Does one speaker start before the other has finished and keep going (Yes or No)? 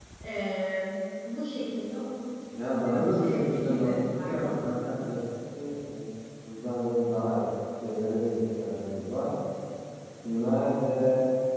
Yes